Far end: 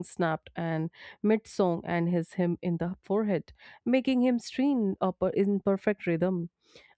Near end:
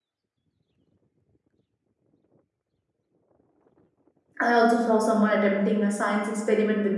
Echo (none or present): none